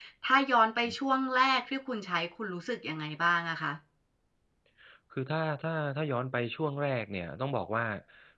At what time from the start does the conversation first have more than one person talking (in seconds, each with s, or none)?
none